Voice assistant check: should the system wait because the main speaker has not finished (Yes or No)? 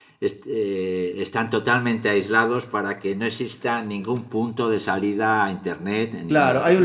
No